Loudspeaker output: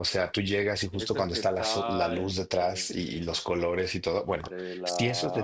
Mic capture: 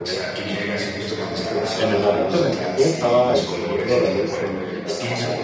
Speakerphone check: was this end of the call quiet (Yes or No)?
No